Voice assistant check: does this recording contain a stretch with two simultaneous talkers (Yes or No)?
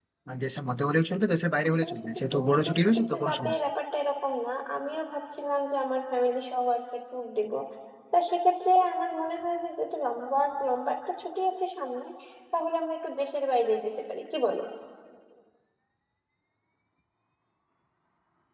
Yes